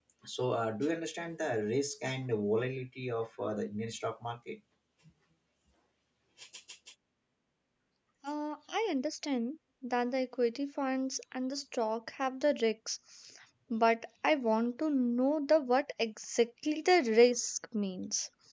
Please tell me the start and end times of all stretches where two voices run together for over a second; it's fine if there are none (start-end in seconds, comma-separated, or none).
none